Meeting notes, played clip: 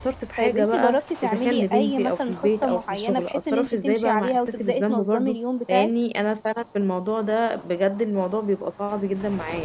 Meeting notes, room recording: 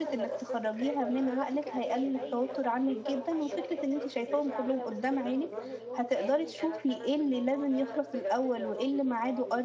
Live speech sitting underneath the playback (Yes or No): No